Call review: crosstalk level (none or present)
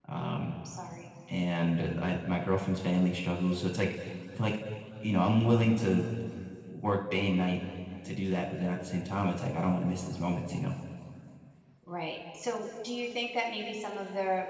none